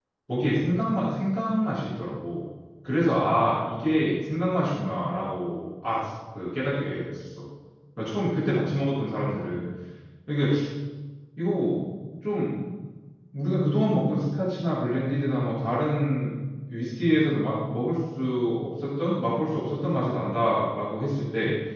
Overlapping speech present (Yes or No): No